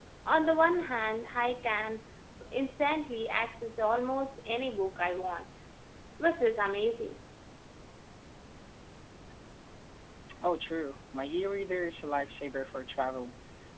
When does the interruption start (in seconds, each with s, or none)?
none